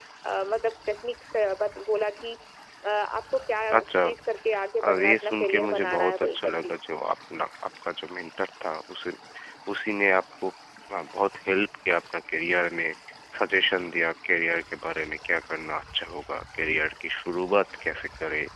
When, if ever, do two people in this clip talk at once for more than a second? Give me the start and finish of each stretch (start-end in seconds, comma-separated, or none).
4.8-6.7